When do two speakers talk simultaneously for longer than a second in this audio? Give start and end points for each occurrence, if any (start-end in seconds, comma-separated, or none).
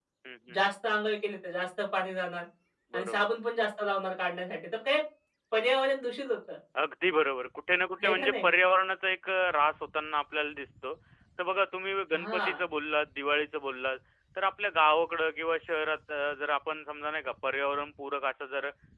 none